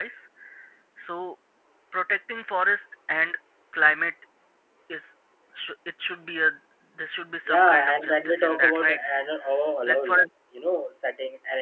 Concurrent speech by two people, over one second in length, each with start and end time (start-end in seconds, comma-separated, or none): 7.5-9.0